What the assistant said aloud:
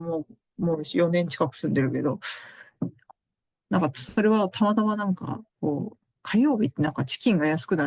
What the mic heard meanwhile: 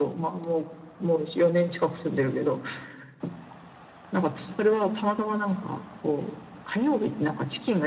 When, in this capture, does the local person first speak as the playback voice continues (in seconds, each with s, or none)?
none